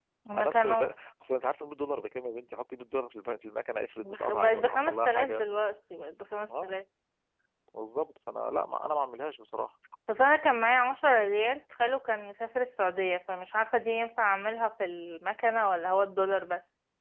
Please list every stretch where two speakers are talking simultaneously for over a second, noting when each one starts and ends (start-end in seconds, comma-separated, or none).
4.0-5.4